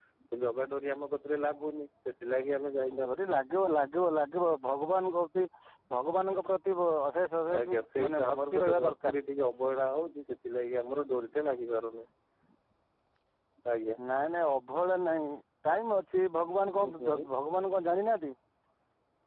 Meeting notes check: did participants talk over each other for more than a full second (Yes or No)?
Yes